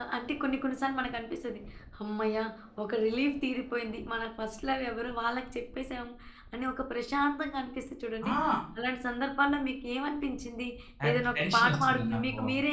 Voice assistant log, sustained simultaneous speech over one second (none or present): present